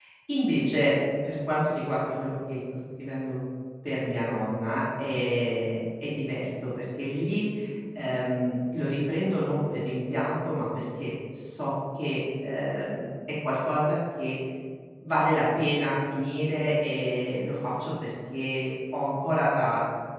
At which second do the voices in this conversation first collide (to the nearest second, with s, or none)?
none